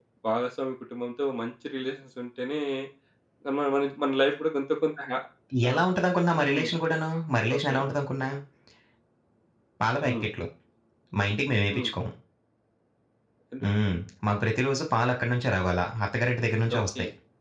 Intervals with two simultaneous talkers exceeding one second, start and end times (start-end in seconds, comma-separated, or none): none